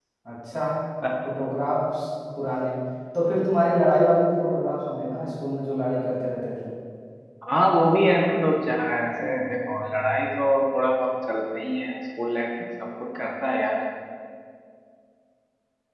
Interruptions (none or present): none